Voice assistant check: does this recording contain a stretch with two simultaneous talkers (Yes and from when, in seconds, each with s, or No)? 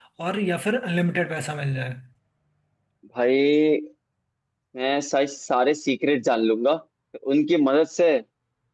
No